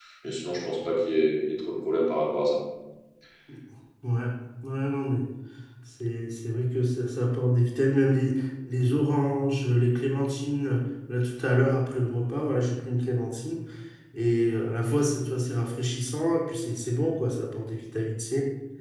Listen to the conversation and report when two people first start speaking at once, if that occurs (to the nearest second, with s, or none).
none